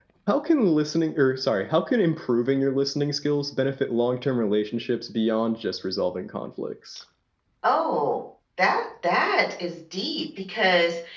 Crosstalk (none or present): none